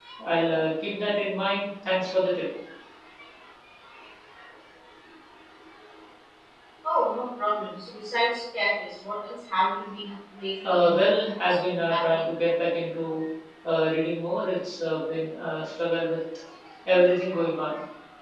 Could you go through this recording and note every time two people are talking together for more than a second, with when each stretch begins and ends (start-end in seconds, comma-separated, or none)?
10.6-12.3